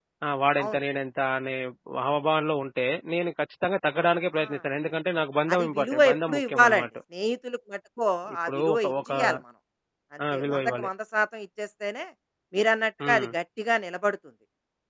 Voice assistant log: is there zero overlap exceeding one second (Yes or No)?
No